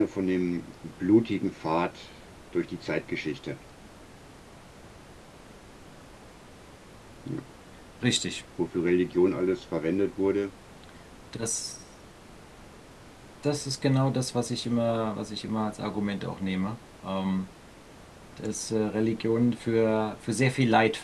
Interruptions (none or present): none